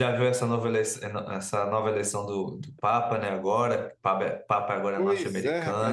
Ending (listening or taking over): taking over